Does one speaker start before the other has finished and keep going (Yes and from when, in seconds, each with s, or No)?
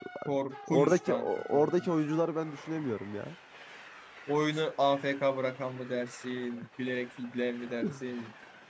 Yes, from 0.7 s